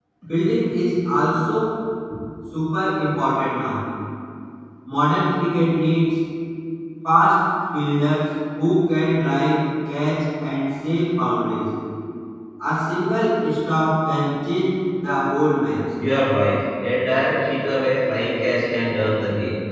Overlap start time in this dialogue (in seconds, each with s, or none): none